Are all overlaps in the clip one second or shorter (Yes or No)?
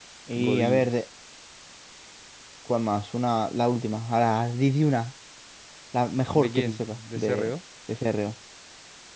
No